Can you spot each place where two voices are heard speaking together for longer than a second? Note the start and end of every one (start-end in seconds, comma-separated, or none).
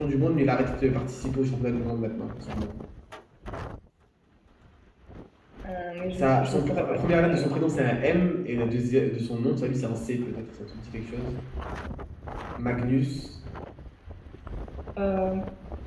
6.1-7.5